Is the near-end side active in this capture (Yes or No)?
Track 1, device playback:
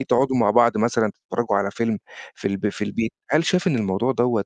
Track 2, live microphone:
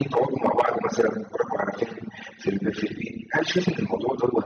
No